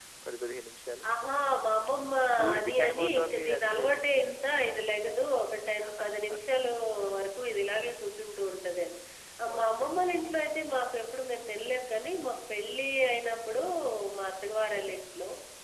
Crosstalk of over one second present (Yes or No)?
Yes